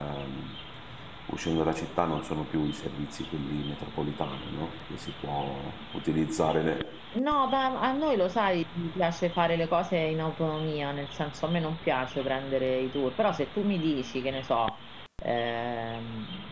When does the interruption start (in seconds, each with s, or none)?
none